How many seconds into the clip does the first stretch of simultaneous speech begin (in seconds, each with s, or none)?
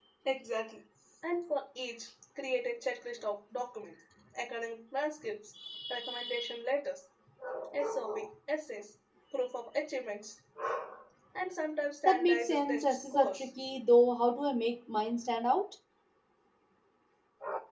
12.1 s